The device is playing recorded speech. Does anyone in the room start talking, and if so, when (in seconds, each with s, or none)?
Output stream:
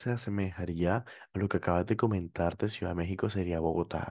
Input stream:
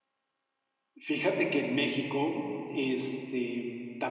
0.9 s